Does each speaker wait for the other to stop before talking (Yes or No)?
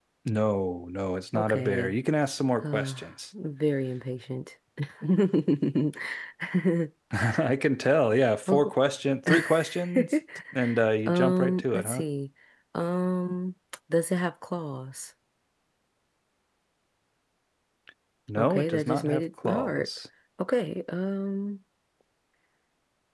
No